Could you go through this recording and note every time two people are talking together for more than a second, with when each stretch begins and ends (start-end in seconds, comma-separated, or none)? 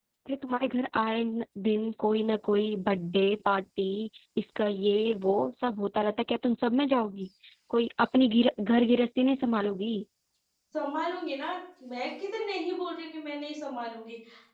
none